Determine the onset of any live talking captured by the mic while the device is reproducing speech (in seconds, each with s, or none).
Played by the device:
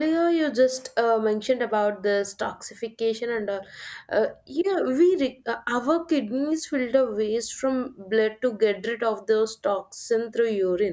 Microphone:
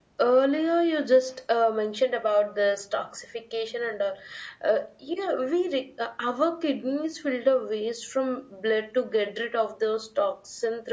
none